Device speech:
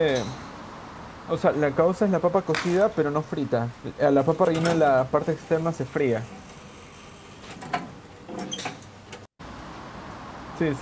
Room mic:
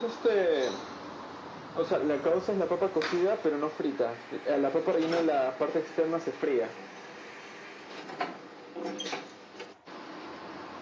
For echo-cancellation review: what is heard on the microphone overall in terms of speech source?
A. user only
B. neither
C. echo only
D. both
C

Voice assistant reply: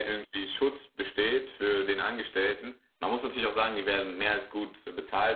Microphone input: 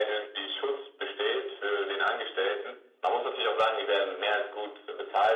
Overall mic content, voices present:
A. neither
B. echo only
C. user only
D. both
B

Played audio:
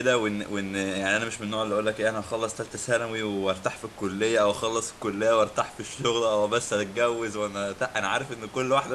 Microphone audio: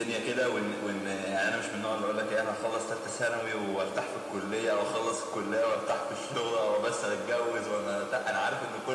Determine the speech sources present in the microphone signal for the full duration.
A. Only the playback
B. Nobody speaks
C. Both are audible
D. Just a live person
A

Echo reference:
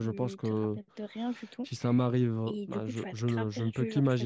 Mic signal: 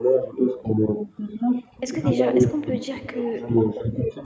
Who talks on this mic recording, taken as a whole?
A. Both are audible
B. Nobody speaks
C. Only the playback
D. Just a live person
A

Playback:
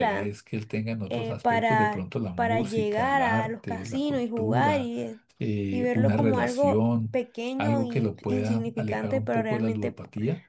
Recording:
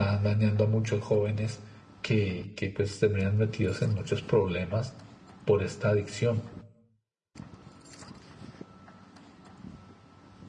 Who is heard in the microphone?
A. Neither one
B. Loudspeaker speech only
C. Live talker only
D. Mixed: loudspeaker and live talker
C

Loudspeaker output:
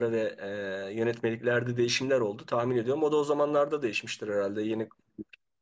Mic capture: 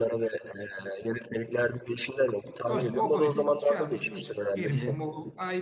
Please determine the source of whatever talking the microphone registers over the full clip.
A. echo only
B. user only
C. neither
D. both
D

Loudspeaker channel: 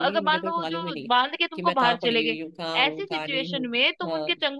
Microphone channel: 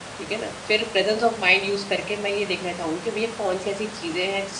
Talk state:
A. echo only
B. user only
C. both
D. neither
B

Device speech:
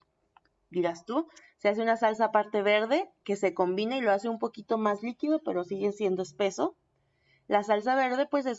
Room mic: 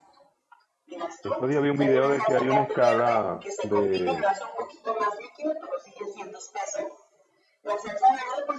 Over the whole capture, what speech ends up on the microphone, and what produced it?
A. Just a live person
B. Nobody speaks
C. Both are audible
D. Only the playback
C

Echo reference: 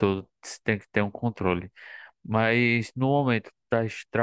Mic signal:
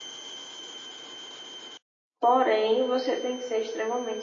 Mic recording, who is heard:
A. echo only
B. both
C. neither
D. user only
D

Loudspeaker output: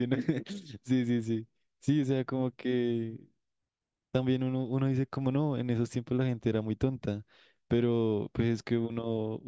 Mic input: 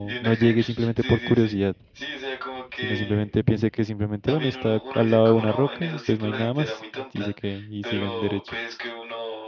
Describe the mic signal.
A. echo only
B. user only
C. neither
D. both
D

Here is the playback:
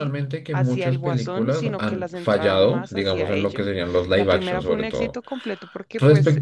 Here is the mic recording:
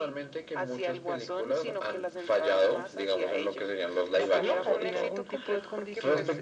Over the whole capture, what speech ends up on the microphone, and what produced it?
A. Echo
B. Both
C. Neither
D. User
B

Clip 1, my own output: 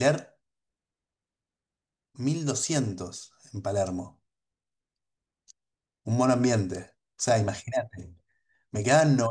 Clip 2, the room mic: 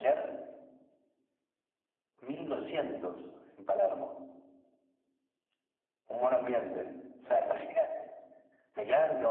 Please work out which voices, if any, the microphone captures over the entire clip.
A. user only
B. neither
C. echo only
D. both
C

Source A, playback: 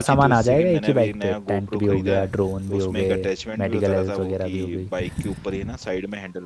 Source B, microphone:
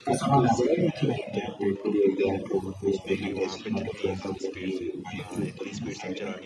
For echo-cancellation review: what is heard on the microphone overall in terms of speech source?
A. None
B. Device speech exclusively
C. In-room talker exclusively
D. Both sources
D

